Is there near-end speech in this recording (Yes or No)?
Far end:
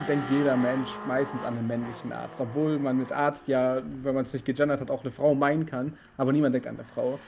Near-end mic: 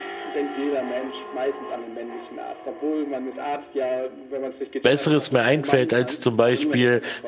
Yes